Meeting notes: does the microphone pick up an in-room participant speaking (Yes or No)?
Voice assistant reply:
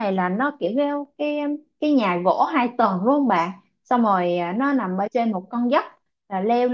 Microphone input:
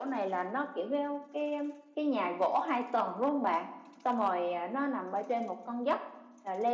No